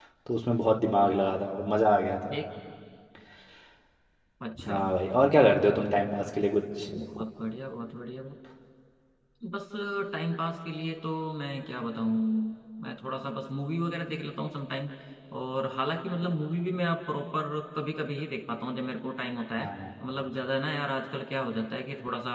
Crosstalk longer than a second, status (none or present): none